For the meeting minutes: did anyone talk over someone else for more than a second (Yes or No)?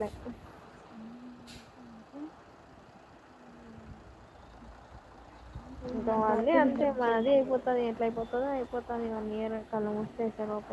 Yes